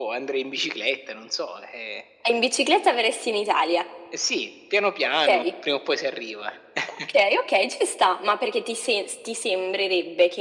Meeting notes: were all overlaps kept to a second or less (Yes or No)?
Yes